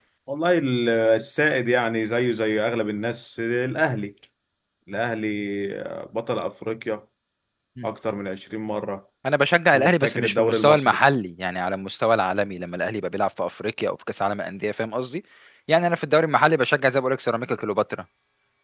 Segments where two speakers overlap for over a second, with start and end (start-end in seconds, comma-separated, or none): 9.7-11.0